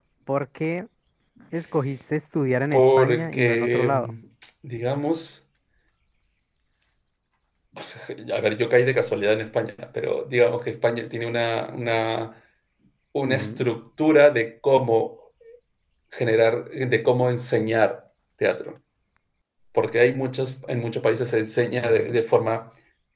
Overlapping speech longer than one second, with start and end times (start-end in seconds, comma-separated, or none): 2.7-4.1